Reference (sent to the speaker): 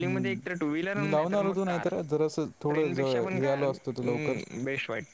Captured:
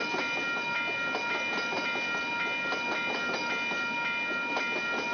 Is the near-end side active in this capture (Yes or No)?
No